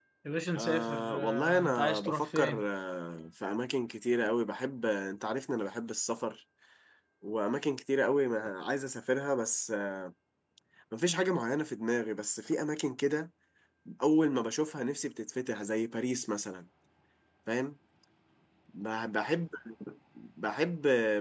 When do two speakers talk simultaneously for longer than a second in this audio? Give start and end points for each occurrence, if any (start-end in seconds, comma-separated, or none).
0.6-2.7